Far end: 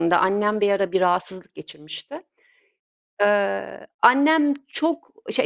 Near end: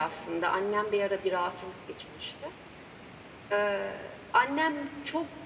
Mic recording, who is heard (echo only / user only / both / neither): echo only